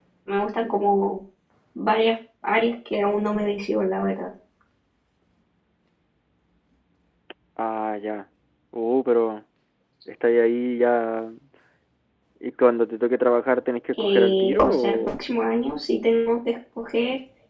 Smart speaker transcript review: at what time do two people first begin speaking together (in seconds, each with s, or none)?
13.9 s